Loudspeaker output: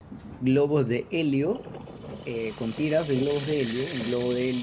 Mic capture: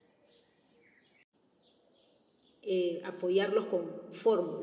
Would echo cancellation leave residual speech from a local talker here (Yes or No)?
Yes